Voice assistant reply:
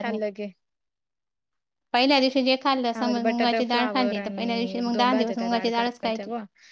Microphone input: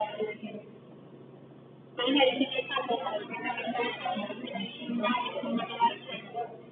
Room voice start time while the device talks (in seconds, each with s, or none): none